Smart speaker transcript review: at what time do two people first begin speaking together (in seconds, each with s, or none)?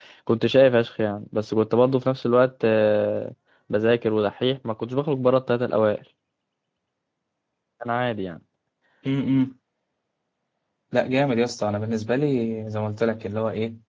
none